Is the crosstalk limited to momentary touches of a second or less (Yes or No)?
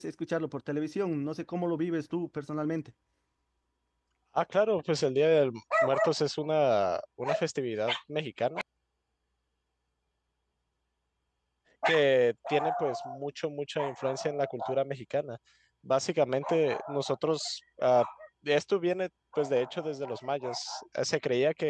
Yes